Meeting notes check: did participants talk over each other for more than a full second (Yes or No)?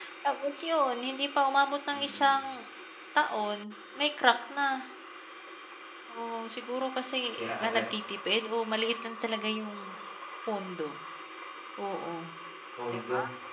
No